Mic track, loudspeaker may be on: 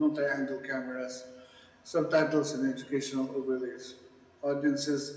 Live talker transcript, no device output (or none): none